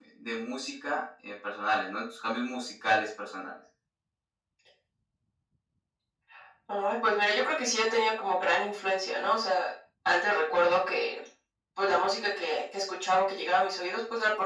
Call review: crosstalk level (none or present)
none